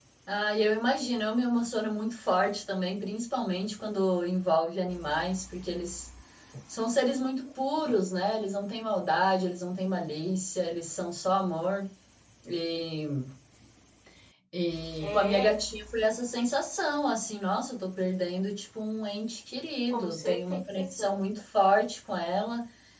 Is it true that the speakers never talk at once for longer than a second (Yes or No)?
No